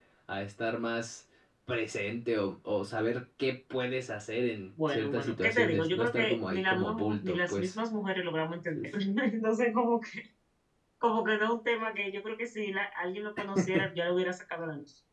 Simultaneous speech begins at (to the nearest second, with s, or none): 5 s